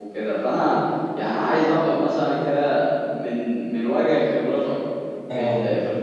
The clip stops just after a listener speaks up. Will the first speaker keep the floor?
Yes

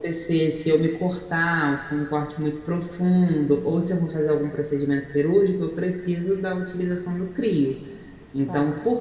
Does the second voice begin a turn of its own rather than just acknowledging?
No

